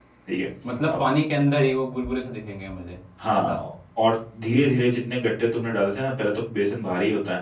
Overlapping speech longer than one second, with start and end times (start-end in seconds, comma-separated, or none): none